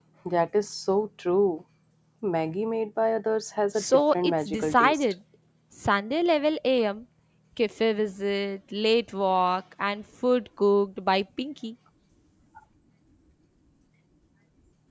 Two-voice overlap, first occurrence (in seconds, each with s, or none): 3.8 s